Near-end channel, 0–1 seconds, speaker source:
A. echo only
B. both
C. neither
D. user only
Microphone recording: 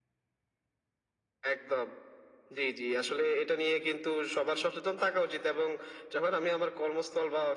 C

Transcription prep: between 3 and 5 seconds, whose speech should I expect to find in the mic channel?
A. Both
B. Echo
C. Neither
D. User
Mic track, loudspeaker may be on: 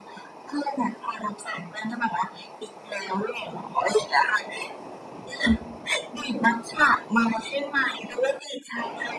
B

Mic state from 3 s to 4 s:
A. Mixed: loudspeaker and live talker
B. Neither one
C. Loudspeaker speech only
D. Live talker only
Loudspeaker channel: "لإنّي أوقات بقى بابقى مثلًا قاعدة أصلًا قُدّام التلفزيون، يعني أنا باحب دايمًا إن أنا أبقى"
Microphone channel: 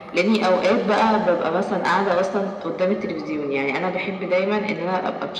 C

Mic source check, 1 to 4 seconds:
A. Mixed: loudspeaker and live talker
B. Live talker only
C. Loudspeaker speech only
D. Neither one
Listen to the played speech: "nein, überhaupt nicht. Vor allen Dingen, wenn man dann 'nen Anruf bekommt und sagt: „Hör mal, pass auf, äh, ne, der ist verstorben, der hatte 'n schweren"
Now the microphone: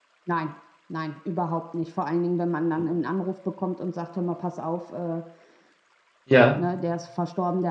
C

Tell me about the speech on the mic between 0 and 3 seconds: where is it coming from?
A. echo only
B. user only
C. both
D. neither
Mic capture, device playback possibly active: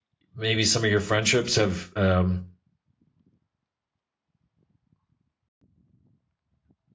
B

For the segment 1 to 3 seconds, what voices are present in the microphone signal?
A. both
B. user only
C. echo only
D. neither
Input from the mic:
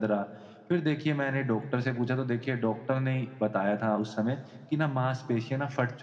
C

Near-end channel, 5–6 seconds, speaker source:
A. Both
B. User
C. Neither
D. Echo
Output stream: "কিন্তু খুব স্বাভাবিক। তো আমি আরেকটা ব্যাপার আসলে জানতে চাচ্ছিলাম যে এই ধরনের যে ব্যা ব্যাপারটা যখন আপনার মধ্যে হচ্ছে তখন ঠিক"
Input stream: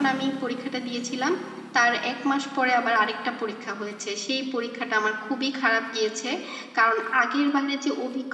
B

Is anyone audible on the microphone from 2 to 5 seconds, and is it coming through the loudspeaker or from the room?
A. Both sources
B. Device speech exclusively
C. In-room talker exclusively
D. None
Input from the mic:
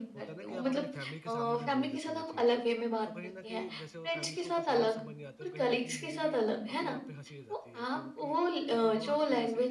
A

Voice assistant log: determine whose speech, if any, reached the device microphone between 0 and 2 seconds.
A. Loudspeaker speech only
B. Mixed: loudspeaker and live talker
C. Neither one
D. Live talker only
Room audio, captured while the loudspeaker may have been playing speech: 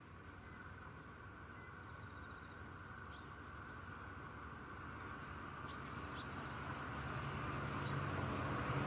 C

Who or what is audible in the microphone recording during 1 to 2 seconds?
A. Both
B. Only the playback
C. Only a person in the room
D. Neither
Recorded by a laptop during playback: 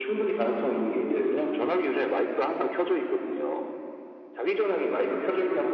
B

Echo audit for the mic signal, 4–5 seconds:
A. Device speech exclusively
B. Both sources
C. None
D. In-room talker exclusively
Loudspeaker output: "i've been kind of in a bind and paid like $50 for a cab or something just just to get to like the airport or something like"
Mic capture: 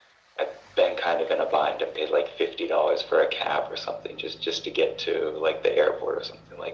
A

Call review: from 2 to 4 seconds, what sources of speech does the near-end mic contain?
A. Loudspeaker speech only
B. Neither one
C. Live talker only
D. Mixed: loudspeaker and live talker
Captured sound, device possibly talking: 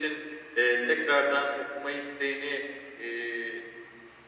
A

